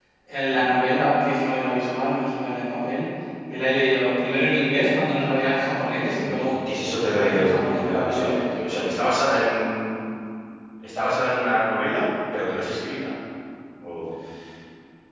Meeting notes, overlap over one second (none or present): present